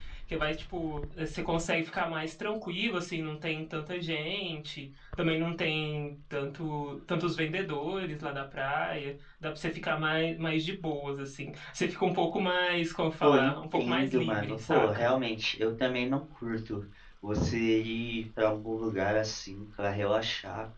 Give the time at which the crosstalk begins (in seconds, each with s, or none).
13.2 s